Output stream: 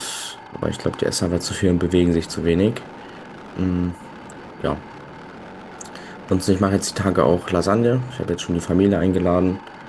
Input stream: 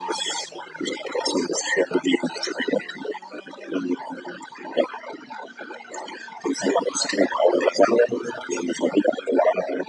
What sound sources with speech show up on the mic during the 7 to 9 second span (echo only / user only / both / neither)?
echo only